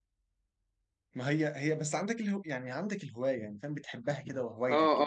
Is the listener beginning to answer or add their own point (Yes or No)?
Yes